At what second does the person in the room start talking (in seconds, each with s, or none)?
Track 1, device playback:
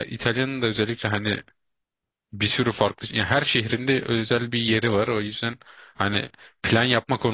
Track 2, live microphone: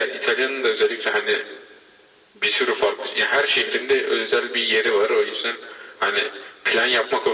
none